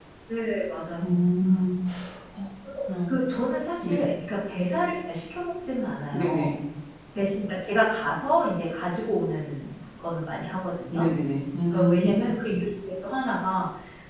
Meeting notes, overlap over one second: none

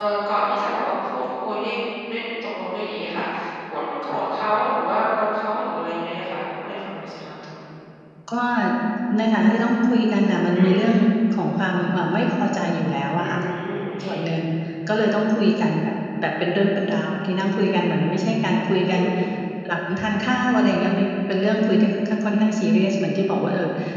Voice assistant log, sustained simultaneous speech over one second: none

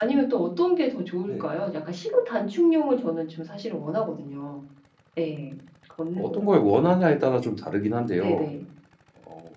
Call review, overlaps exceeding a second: none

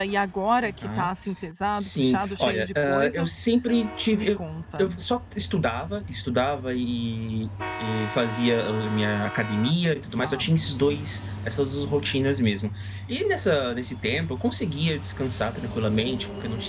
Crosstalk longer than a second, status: present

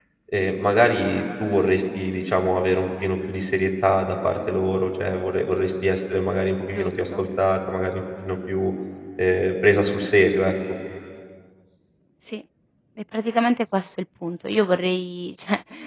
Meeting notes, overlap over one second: none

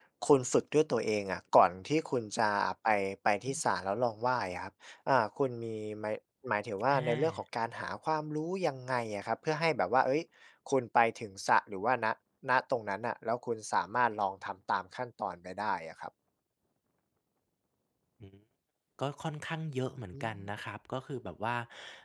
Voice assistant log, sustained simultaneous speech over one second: none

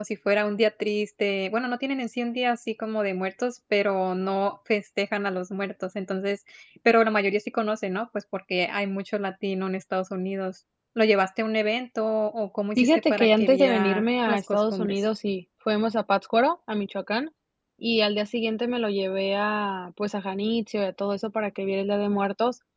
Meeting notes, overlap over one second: present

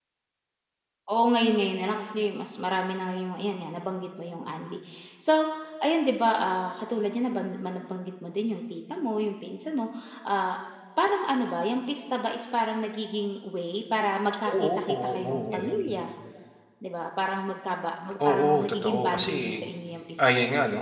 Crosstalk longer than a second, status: present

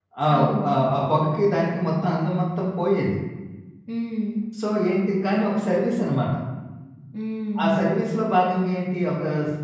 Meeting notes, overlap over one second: none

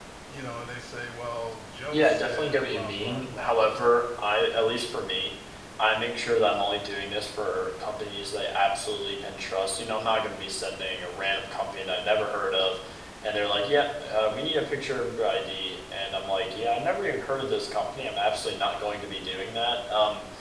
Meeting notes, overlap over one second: present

